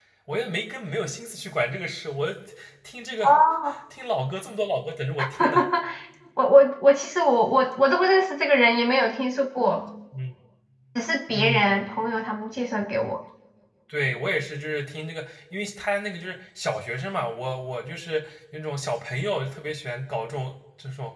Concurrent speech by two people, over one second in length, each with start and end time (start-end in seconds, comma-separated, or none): none